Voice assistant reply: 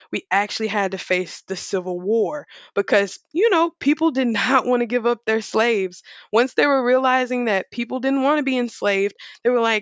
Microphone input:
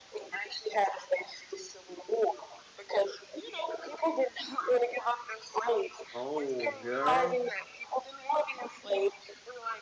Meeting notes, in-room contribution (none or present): present